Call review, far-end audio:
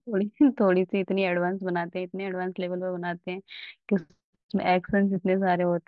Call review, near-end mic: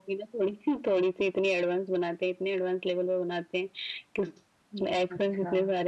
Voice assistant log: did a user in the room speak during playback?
Yes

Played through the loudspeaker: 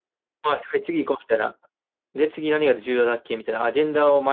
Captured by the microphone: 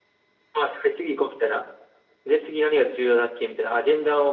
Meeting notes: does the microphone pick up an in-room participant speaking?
No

